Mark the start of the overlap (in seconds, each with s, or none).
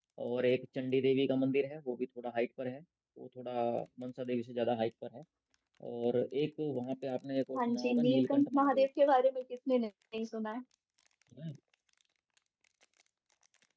7.5 s